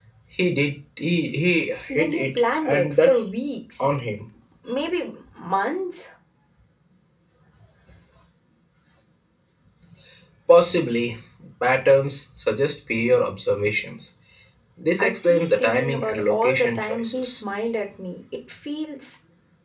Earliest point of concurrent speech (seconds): 2 s

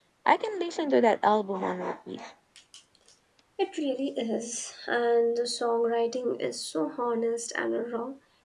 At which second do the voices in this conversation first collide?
none

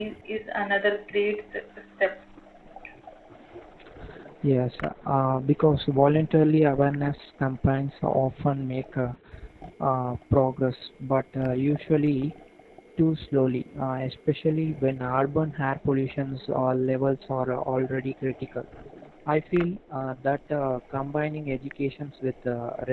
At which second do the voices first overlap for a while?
none

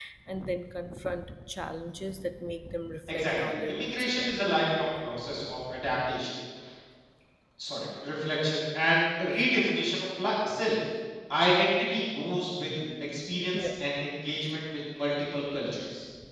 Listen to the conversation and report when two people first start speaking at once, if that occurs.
3 s

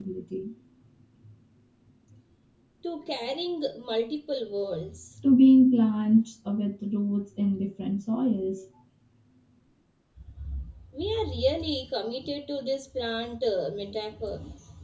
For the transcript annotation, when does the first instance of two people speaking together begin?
none

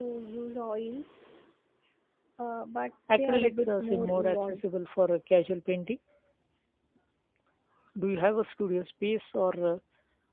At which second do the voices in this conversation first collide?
3 s

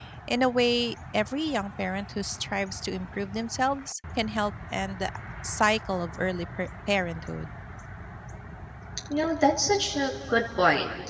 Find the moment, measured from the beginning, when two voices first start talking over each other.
none

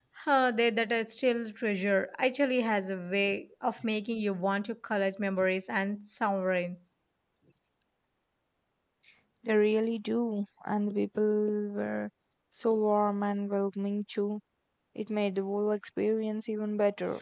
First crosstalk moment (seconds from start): none

